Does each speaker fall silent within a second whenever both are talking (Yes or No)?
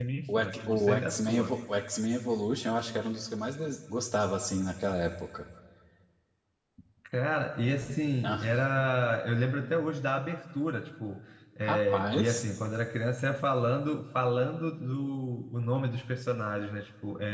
No